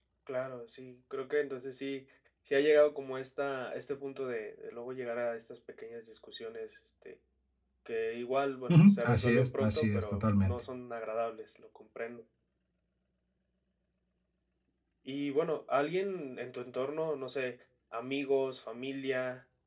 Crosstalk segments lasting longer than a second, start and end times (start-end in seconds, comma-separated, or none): 8.7-10.6